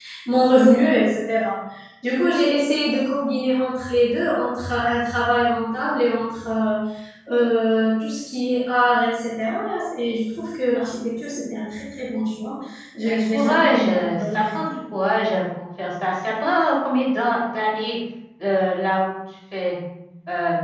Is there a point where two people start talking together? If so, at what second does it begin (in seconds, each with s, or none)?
13.1 s